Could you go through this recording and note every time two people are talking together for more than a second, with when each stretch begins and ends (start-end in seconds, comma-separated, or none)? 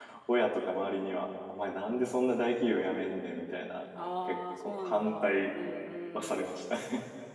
4.2-5.5